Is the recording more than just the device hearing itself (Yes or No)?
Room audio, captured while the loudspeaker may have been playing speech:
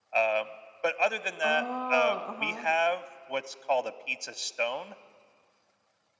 Yes